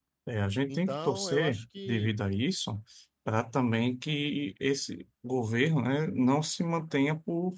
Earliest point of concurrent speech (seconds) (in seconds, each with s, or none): 0.7 s